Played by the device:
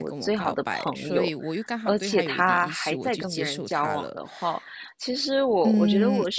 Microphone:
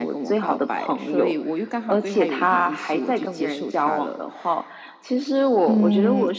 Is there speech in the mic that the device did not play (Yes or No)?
No